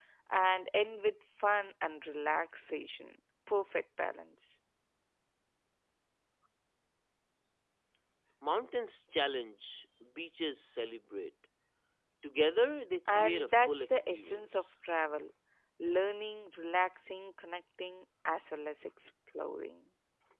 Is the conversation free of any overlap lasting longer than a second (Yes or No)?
No